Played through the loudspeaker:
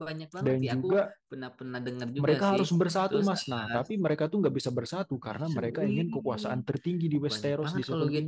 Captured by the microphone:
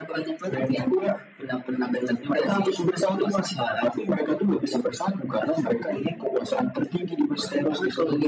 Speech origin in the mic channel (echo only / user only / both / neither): both